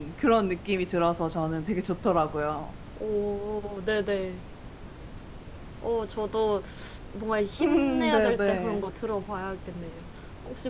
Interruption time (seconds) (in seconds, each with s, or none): 7.6 s